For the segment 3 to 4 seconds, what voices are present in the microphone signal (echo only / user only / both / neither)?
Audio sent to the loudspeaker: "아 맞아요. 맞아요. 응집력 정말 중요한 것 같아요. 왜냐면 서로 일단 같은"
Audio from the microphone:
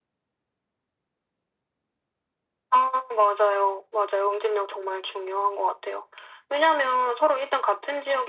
echo only